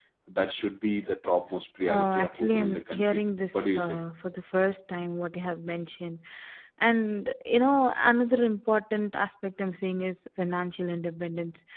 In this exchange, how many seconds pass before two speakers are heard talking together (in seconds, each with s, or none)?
1.9 s